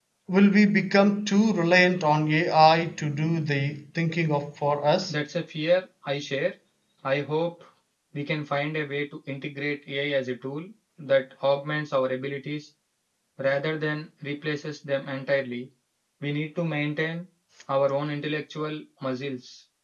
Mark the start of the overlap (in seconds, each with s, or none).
none